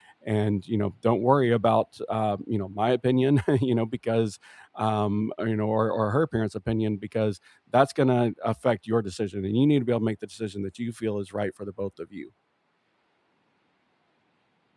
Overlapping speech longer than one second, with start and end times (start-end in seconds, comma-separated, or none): none